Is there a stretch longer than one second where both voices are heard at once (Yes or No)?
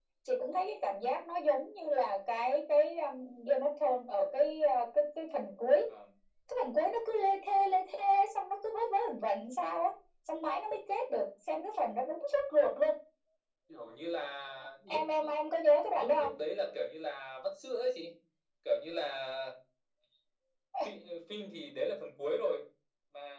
No